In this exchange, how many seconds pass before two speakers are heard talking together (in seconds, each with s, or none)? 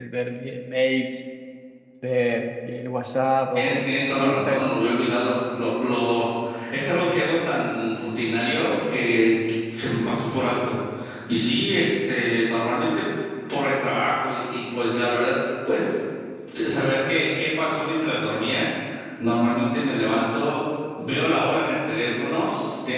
3.5 s